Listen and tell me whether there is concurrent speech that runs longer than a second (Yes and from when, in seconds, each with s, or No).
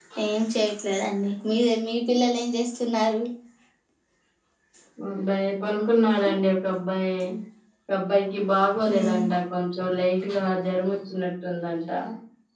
No